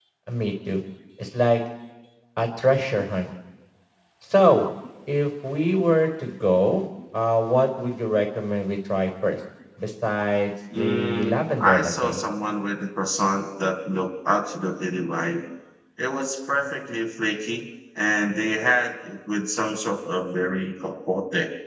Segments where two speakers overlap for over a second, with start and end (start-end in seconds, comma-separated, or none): 10.7-12.2